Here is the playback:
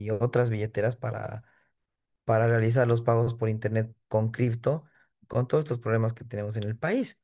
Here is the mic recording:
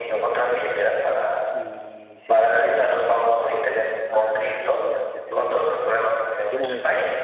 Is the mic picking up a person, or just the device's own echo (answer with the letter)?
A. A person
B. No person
A